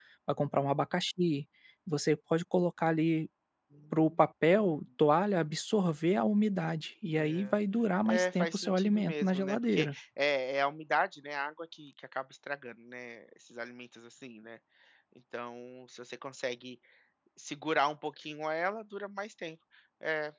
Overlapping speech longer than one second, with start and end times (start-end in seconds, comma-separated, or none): 8.0-9.9